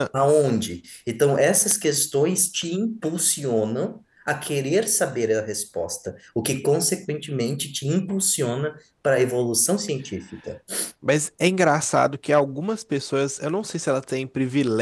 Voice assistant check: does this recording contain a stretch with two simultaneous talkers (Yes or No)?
No